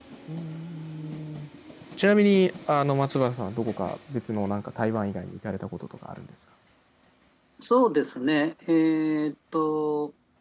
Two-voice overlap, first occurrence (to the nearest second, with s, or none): none